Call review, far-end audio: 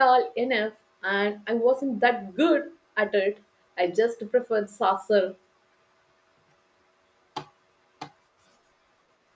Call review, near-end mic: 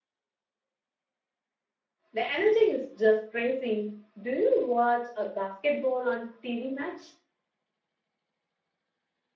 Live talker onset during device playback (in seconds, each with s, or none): 2.1 s